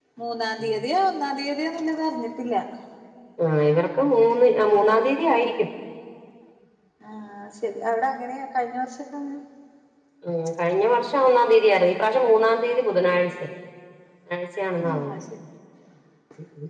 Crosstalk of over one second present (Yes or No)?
No